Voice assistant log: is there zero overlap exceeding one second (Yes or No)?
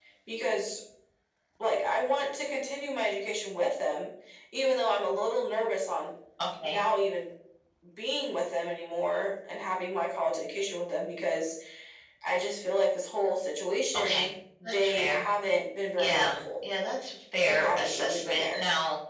No